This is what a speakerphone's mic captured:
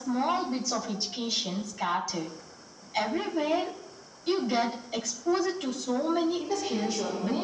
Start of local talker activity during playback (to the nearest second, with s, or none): 6 s